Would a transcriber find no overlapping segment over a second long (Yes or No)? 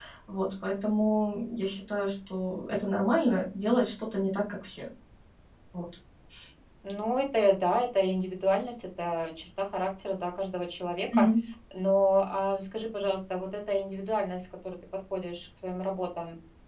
Yes